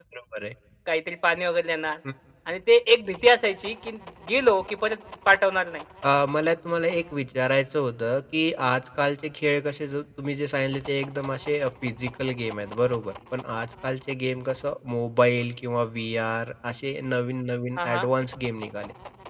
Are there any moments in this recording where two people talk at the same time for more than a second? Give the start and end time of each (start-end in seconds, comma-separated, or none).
none